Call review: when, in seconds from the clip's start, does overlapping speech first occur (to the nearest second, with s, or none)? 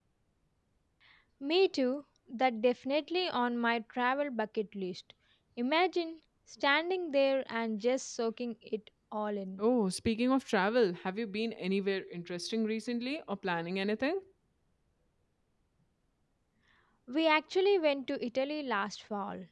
none